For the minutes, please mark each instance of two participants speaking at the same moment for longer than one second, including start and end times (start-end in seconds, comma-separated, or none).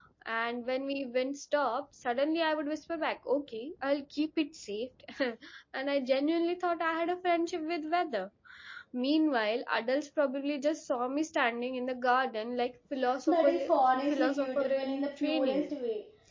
13.3-15.7